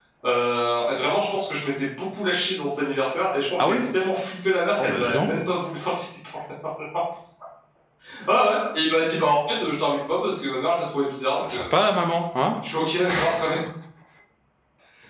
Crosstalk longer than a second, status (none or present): none